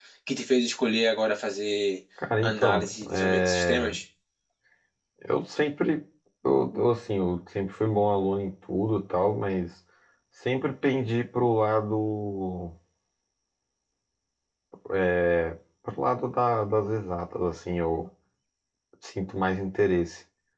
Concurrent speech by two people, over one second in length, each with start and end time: 2.4-3.9

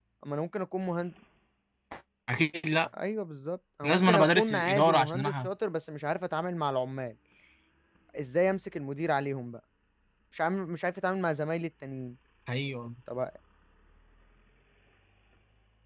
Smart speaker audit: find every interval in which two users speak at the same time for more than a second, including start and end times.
3.8-5.5

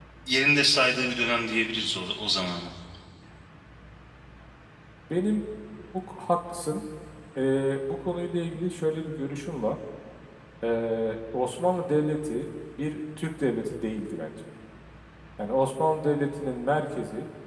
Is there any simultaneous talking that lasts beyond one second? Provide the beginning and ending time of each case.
none

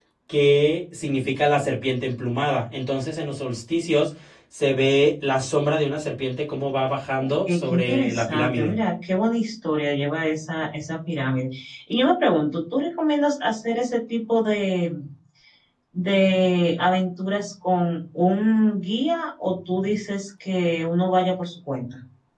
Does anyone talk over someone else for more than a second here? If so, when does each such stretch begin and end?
7.2-8.7

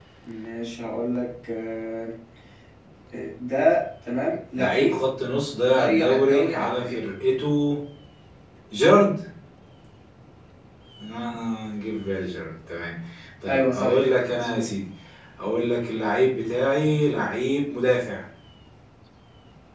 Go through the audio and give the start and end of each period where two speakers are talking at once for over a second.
5.7-7.1, 13.5-14.7

